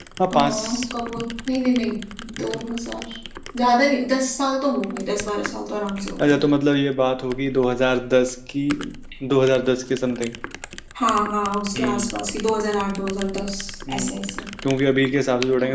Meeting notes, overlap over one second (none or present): none